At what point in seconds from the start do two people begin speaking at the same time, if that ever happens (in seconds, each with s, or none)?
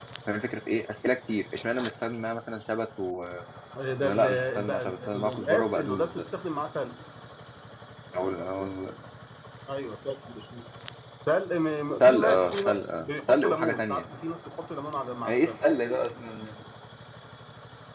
4.0 s